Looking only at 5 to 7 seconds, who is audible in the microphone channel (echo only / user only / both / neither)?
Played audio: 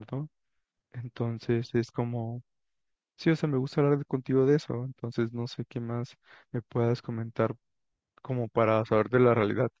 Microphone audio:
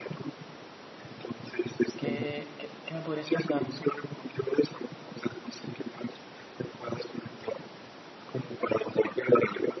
echo only